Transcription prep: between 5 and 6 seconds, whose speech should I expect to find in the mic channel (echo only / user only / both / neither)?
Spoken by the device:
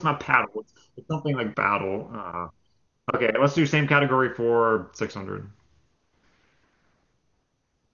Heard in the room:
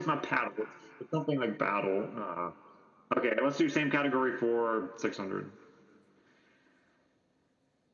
echo only